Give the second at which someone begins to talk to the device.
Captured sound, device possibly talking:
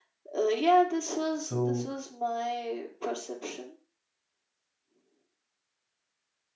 1.3 s

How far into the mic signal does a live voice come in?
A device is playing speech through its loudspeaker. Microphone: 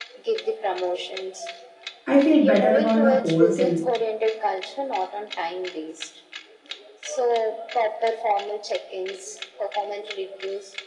2.1 s

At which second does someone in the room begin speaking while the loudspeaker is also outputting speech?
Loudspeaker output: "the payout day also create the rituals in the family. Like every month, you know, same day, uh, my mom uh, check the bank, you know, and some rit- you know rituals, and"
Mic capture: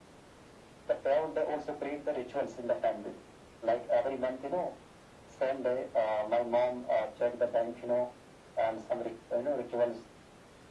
none

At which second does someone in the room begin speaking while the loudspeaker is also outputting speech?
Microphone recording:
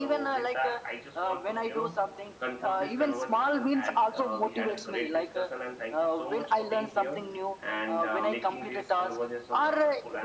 none

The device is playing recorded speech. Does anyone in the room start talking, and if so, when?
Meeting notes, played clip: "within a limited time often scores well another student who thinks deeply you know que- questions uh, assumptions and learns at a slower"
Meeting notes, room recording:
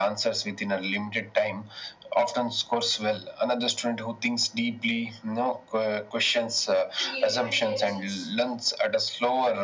7.0 s

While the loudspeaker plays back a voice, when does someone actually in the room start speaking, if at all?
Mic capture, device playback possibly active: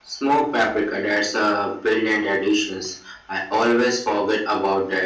none

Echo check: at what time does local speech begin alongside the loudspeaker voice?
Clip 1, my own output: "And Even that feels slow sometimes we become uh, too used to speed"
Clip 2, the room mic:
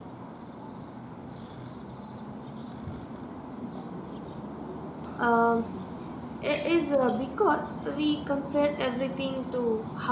5.2 s

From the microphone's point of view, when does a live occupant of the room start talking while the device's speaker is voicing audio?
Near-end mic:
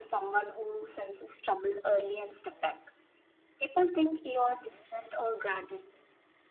none

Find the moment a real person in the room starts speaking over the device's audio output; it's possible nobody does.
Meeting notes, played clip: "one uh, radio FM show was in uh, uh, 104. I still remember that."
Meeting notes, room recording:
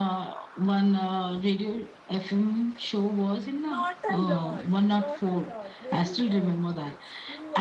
3.6 s

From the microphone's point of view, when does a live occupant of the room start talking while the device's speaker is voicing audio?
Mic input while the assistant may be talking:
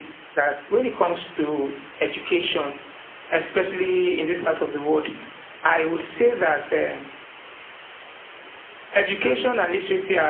none

